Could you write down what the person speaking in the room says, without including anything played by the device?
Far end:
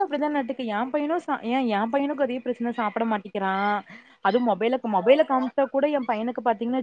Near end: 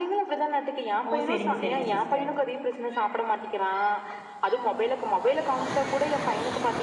ஓ செரிங்க செரிங்க சிஸ்டர்

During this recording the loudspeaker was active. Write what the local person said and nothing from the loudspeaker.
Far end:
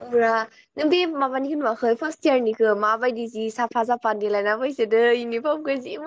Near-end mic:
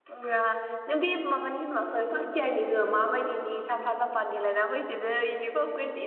none

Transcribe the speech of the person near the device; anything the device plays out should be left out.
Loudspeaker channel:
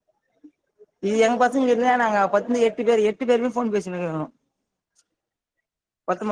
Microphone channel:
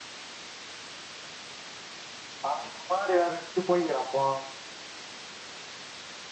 அவ இதுக்கு மாதிரி வேற விறக்கி போயக்கிறான்ப்போ

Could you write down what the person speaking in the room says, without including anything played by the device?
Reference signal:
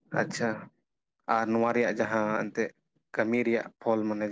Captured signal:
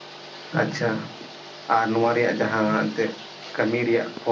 none

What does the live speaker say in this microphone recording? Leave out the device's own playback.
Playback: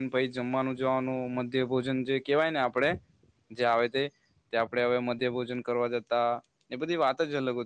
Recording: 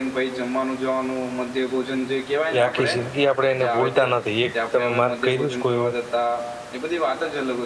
એ આખી જિંદગી આપણેે એને ભૂલતા નથી, એક તમે માર્ક કર્યું કોઈ વાર

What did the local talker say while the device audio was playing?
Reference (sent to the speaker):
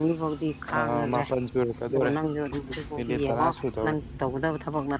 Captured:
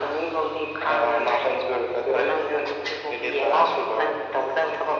none

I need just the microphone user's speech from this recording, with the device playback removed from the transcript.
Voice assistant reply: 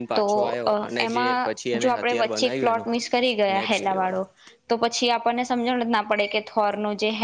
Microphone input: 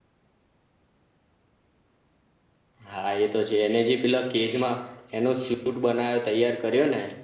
હા એતો છે એને જે પેલા કેજમાં એનો સૂટ બનાવ્યો તૈયાર કર્યો ને

